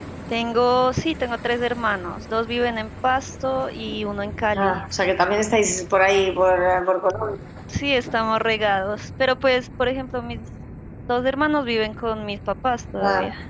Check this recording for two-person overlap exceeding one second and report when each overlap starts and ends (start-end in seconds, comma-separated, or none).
none